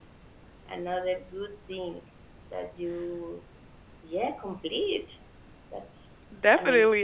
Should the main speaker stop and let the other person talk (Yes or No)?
Yes